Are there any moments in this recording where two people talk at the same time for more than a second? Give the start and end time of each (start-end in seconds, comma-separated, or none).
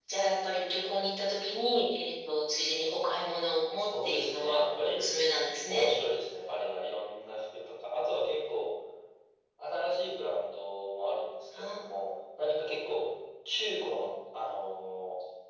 3.8-5.0